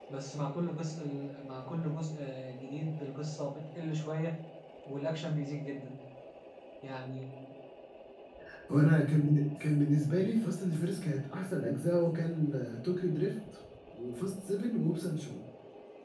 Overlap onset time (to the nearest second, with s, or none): none